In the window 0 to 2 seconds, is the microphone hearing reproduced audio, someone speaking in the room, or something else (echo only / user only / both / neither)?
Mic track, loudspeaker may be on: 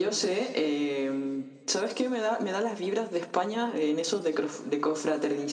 echo only